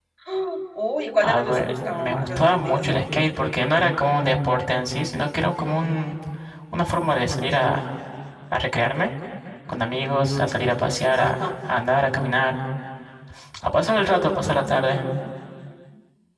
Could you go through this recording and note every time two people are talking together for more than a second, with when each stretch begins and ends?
1.2-3.0

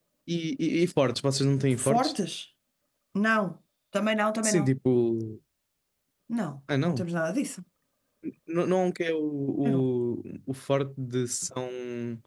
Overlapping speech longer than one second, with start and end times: none

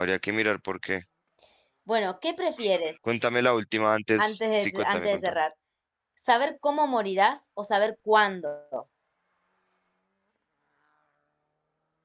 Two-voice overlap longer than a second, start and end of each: 4.2-5.4

